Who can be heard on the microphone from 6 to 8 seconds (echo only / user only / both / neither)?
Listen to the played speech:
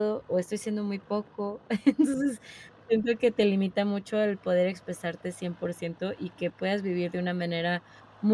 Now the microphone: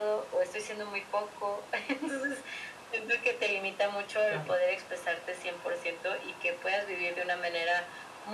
echo only